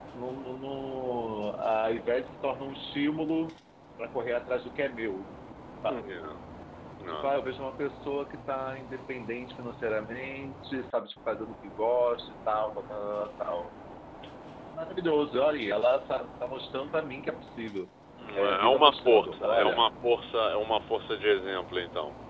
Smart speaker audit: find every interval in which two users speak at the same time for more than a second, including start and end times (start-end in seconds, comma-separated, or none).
18.4-19.9